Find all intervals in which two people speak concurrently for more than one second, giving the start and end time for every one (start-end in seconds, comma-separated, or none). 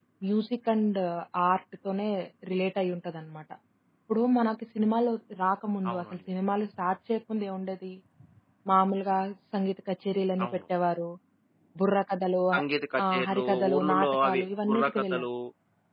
13.1-15.2